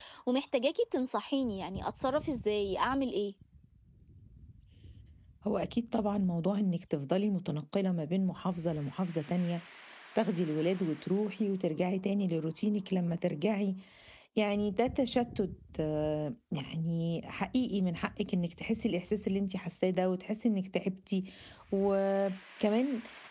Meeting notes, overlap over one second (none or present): none